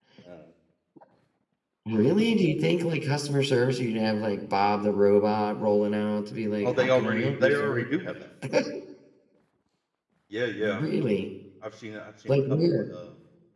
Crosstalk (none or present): present